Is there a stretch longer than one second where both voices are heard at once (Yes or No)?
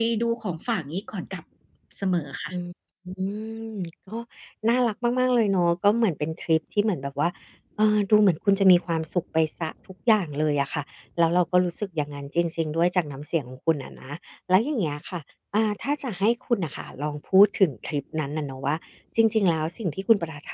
No